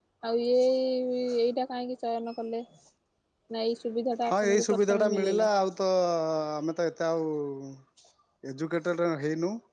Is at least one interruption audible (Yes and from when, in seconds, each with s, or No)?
Yes, from 4.3 s